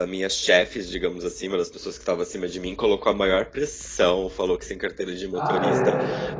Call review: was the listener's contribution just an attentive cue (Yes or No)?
Yes